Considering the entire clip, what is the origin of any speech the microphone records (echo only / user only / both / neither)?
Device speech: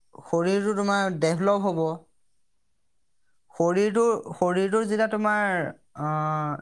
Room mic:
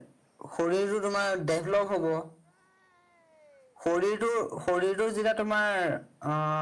echo only